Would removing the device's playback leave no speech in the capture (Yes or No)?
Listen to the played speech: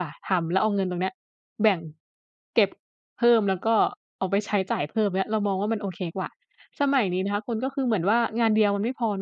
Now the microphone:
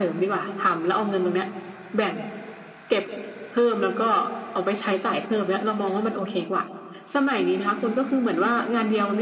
Yes